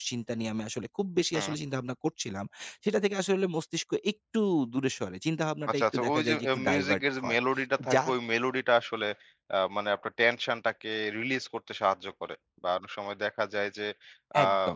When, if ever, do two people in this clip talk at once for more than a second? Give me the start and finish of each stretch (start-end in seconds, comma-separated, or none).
5.7-7.4